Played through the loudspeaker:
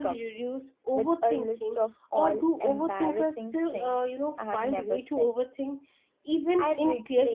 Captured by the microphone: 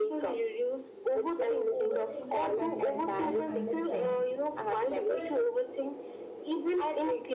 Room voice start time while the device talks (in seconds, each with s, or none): 1.3 s